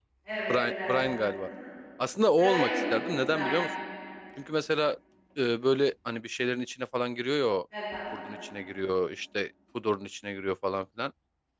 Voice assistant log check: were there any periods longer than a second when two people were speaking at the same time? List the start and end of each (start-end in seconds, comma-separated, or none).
2.4-3.6